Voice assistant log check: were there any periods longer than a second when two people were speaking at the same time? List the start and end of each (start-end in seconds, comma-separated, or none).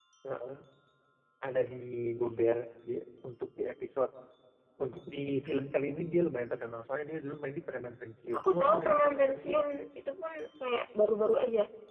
8.3-9.6